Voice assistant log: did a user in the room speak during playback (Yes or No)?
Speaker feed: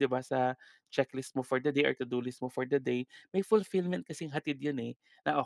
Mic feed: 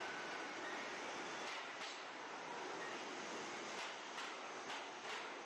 No